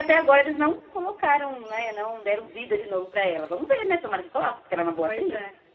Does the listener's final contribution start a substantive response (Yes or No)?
Yes